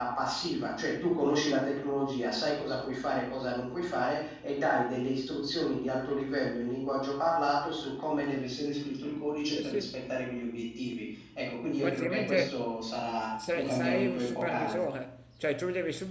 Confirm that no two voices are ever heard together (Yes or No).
No